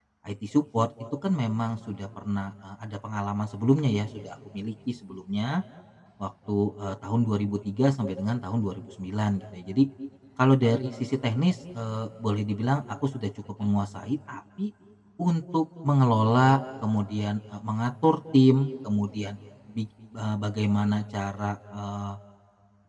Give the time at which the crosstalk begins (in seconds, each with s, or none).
none